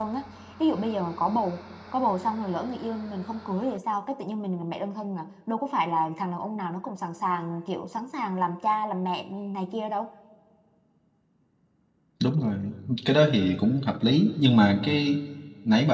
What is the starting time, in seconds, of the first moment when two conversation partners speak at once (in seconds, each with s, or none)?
none